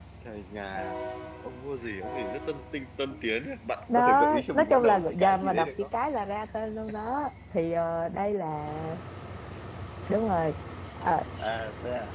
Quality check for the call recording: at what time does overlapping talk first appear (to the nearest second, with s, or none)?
4 s